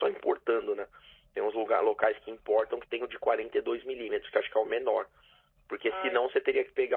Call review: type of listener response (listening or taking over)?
listening